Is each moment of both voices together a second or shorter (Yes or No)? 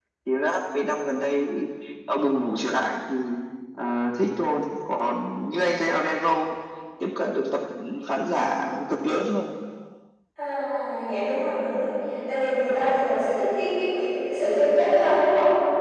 Yes